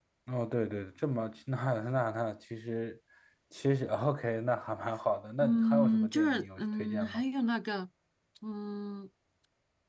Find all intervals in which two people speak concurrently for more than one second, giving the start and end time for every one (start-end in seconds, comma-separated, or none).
5.4-7.2